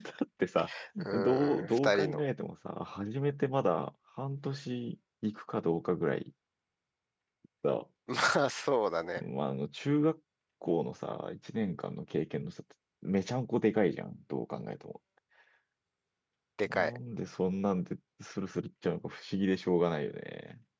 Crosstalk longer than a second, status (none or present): present